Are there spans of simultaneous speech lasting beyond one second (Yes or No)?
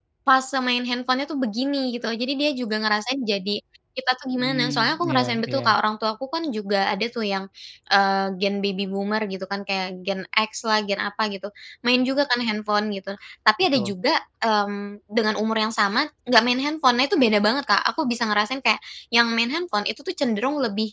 Yes